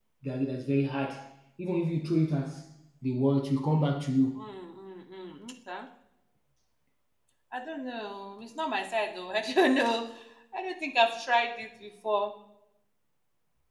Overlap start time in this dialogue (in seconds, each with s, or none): none